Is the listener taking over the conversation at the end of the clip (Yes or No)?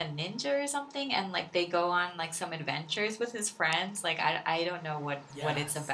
Yes